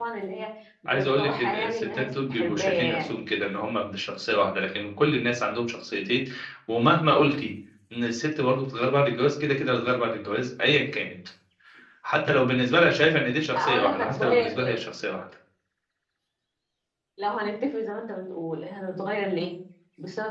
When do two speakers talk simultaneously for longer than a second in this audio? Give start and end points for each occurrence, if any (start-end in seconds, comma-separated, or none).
0.8-3.1, 13.6-14.8